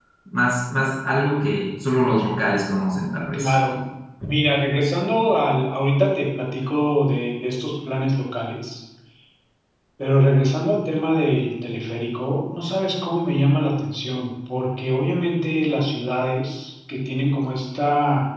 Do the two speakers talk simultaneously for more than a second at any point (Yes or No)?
No